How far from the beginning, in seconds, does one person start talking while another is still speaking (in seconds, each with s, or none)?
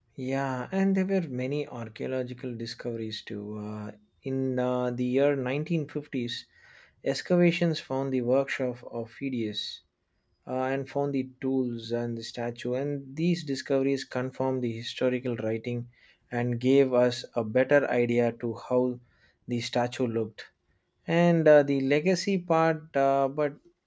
none